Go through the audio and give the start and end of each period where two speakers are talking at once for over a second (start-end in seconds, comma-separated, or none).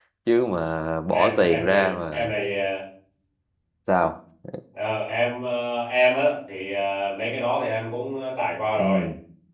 1.1-2.3